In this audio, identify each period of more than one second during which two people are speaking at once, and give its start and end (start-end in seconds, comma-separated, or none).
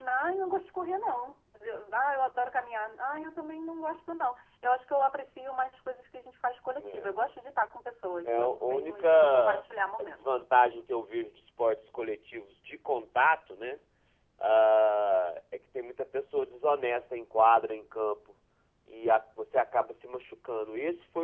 8.2-9.6